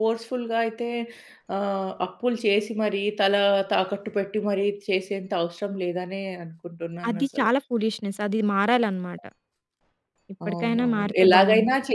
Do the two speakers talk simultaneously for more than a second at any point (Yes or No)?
Yes